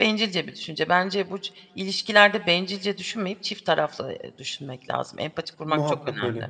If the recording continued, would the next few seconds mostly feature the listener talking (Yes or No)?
Yes